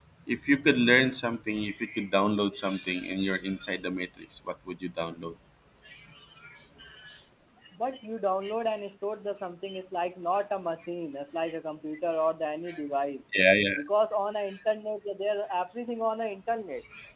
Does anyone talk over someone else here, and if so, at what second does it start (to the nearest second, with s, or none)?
none